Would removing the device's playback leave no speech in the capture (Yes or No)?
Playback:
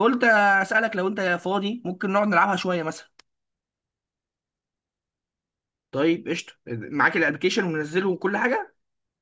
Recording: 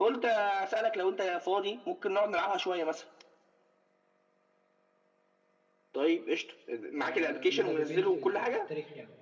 No